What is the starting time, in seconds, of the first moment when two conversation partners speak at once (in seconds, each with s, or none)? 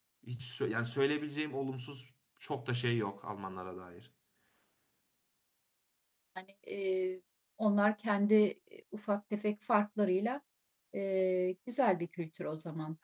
none